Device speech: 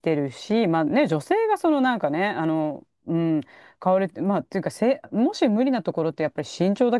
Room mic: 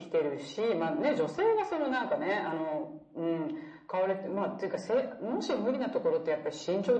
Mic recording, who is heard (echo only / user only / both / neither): echo only